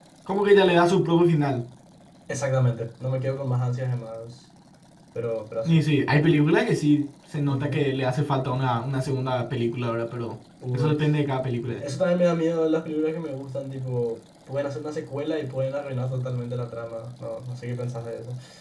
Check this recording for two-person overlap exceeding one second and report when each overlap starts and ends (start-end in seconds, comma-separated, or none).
none